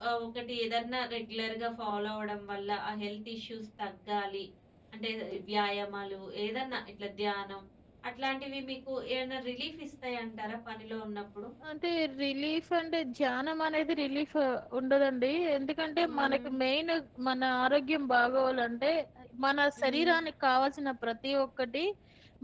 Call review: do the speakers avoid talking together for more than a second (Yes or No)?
Yes